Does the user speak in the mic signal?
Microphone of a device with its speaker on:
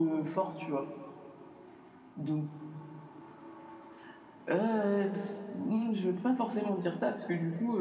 No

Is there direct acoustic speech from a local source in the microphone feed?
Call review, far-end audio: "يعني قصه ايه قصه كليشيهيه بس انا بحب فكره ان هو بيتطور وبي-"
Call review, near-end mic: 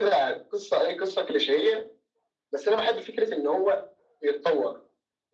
No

